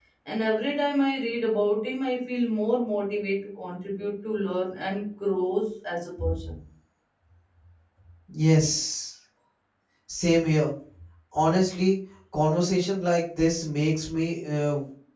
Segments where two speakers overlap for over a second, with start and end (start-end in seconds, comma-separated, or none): none